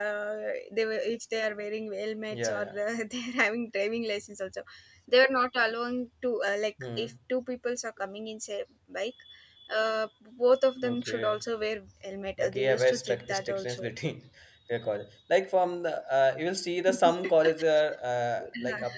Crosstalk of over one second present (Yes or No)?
Yes